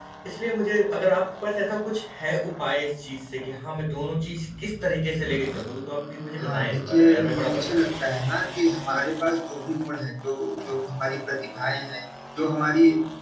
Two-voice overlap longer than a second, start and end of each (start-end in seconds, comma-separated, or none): 6.4-7.9